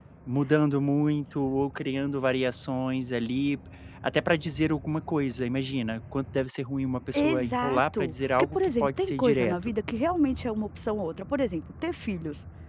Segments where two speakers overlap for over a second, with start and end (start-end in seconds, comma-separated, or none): 7.1-9.7